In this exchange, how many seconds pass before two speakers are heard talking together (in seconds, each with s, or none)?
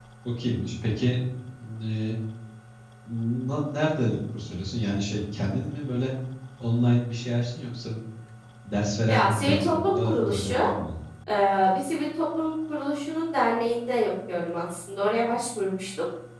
9.1 s